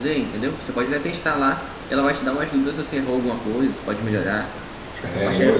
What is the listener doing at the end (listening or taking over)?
taking over